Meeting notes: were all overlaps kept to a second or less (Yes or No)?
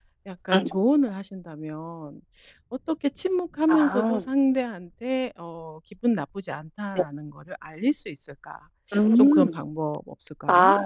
Yes